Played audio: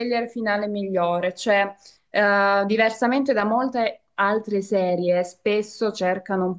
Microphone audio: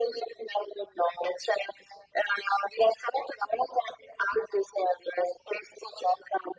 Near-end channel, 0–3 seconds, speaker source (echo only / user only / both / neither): echo only